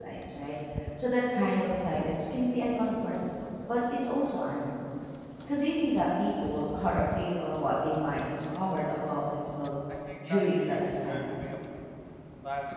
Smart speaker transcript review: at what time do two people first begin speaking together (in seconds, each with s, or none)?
10.3 s